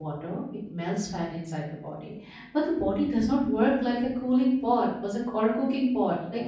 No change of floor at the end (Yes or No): Yes